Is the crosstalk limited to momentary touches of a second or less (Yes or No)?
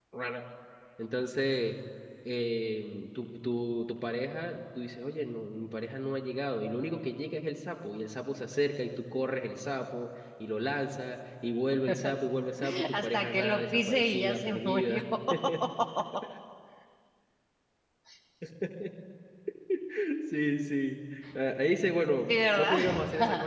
No